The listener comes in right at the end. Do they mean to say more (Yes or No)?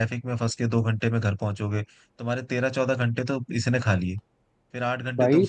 No